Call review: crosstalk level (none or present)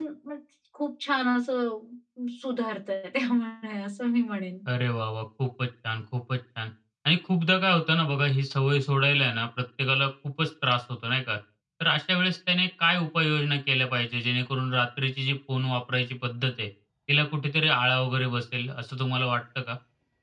none